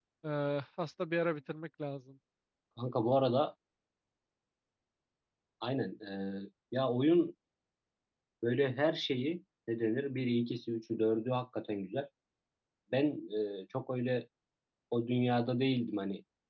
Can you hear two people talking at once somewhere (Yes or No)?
No